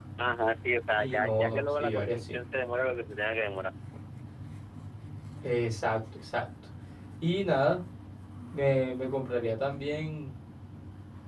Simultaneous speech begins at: 1.0 s

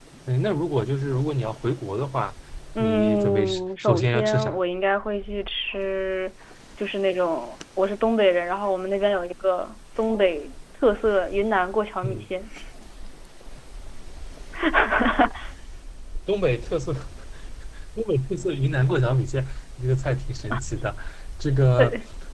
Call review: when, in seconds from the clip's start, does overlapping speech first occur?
2.8 s

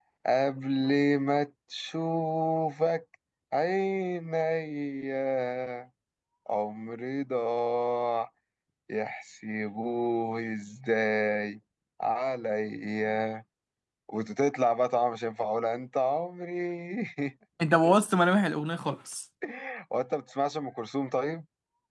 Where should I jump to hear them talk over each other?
none

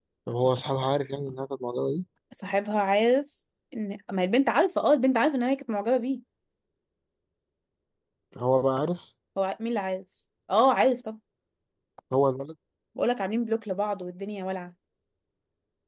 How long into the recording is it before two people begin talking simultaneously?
none

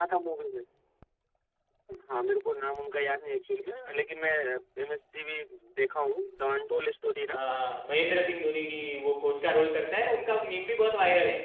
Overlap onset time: none

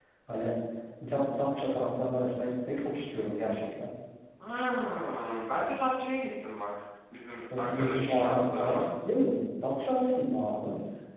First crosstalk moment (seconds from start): 7.5 s

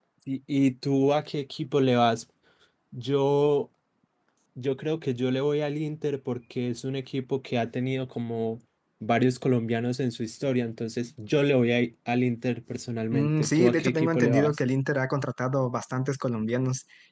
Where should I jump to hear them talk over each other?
13.1 s

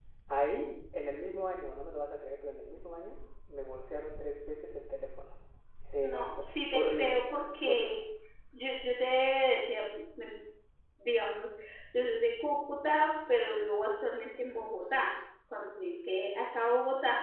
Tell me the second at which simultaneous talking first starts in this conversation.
6.0 s

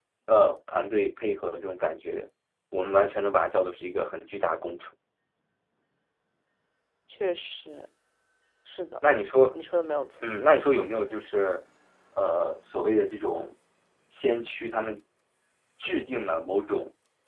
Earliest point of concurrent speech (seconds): none

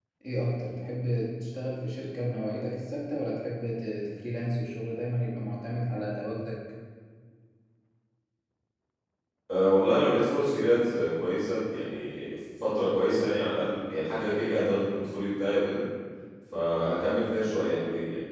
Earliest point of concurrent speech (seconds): none

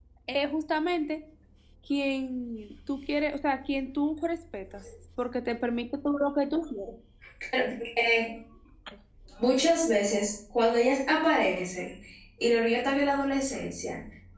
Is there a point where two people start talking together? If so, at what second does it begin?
none

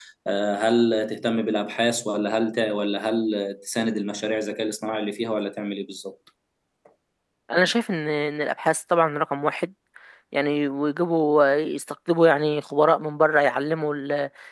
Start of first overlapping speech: none

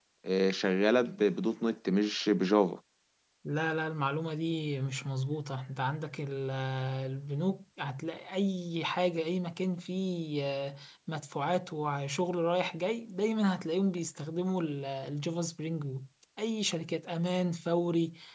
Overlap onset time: none

